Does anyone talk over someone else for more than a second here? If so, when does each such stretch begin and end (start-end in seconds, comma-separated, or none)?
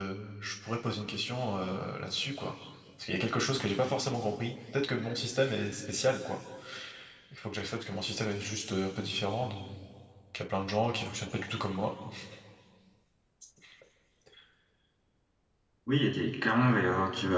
none